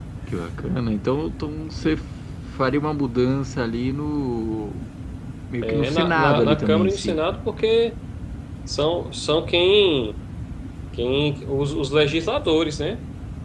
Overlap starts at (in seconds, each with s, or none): 5.6 s